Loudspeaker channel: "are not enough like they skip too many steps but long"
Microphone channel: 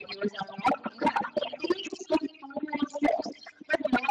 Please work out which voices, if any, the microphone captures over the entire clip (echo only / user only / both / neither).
echo only